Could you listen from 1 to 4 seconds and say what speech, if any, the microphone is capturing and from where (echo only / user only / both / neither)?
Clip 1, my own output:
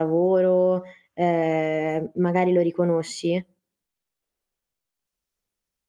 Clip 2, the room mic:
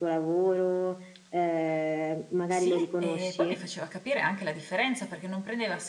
both